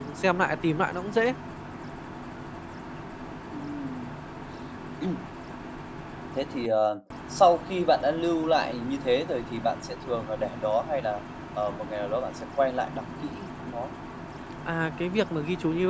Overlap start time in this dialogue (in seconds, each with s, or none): none